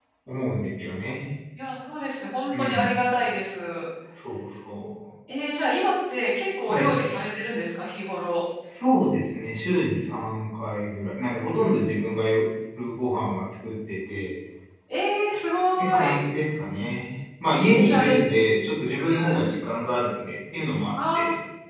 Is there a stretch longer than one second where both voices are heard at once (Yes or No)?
No